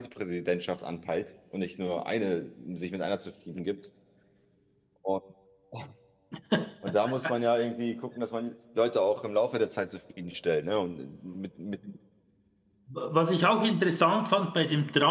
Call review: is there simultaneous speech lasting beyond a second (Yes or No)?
No